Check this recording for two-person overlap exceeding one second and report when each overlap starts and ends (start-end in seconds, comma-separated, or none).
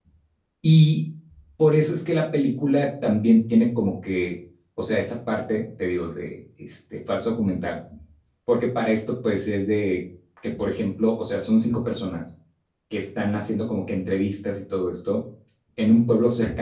none